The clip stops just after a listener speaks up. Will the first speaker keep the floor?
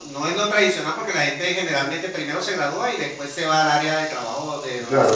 No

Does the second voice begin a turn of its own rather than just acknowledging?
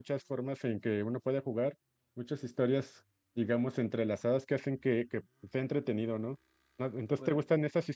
No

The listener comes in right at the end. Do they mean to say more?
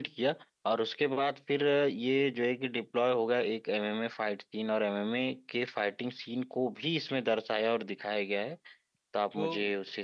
Yes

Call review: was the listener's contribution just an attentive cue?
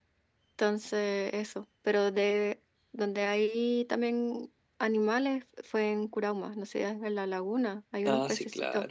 No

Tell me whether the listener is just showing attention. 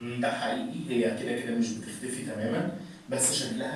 Yes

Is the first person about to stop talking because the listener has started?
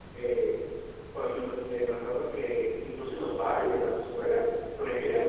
No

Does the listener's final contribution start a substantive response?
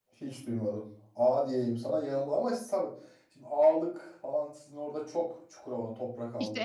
Yes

